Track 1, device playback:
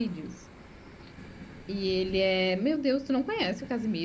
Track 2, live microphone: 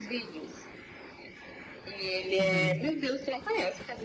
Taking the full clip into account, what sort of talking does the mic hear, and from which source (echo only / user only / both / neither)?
both